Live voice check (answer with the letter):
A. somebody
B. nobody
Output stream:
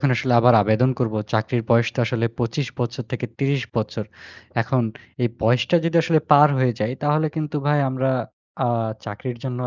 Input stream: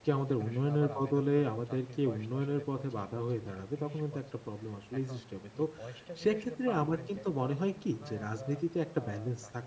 A